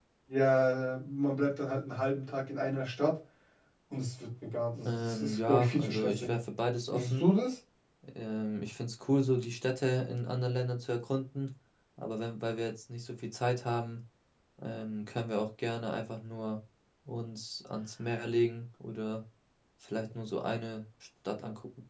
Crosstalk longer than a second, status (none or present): present